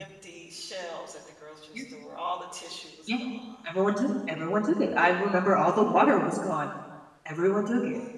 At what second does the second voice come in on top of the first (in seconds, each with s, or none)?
none